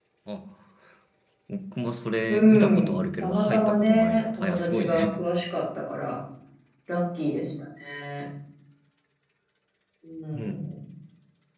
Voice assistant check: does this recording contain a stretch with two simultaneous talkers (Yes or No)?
Yes